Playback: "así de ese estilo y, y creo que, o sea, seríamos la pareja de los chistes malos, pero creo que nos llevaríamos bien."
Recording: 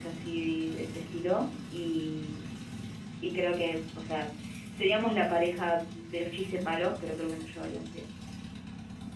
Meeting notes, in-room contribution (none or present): none